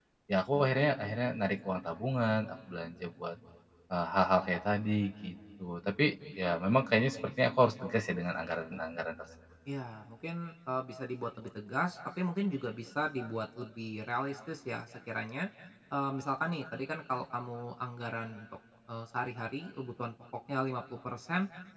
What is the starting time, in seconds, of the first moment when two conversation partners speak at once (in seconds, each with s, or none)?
none